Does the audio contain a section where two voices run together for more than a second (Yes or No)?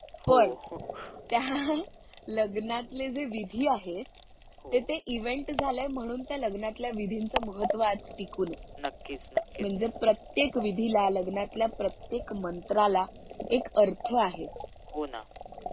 No